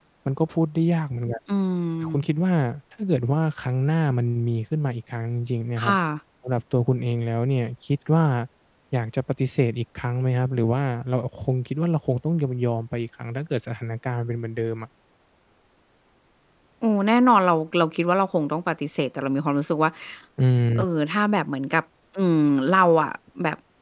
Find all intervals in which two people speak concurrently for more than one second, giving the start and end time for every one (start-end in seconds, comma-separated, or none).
none